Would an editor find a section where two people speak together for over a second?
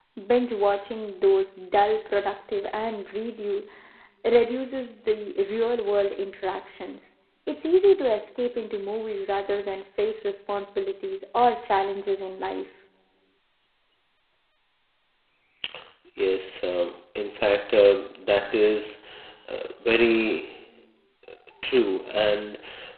No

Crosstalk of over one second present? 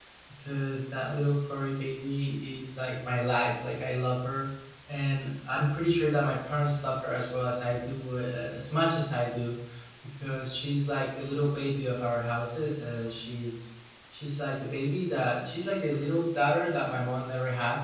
No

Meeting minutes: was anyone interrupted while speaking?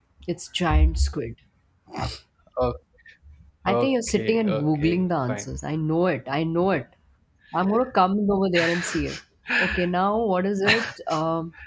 Yes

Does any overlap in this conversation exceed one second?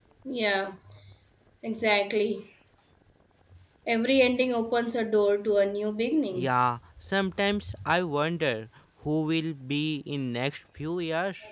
No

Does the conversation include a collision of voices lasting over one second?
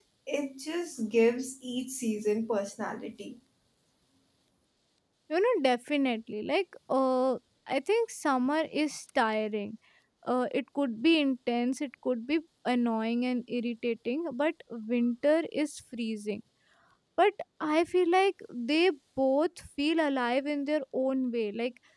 No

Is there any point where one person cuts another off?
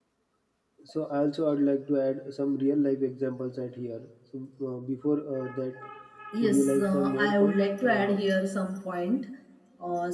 Yes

